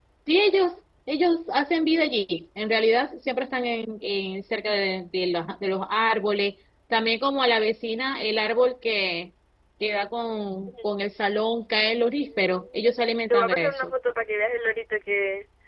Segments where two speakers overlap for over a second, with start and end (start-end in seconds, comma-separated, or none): 12.2-13.9